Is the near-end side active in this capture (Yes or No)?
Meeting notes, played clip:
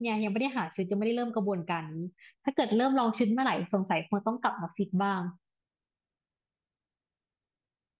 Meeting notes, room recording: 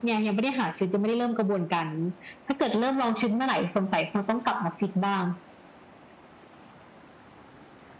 No